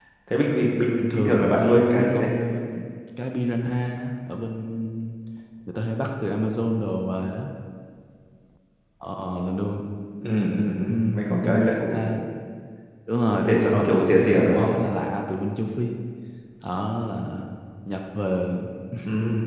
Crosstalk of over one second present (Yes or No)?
Yes